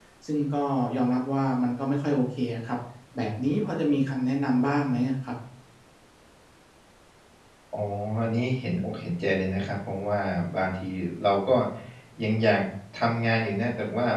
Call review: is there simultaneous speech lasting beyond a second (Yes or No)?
No